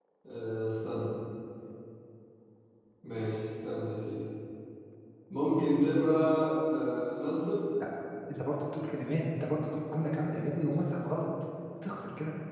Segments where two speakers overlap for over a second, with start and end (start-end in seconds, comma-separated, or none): none